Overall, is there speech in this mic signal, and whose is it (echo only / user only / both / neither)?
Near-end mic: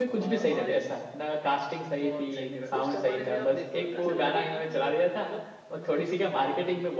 both